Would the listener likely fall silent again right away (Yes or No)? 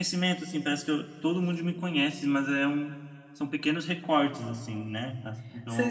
No